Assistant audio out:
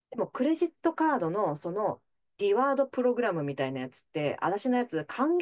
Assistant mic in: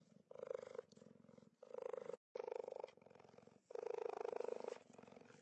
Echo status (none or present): none